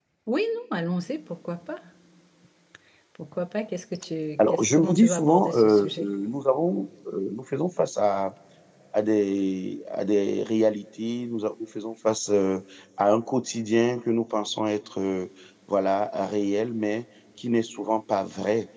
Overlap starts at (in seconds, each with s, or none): 4.4 s